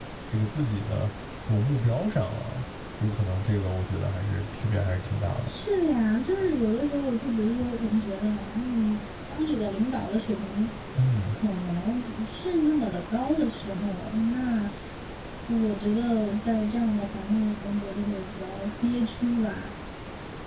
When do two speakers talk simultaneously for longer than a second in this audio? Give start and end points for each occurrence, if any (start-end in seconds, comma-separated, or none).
none